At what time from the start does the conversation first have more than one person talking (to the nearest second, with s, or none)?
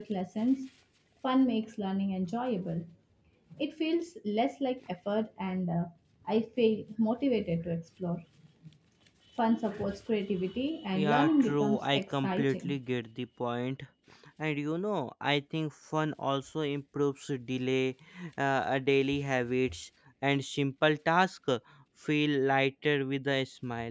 11 s